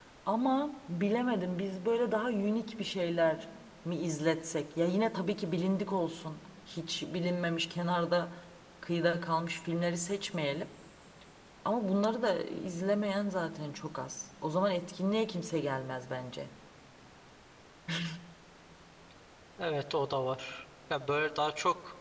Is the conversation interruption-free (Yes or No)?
Yes